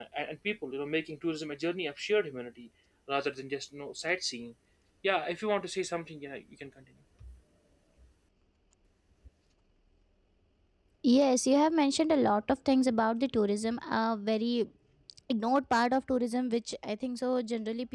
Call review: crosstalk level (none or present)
none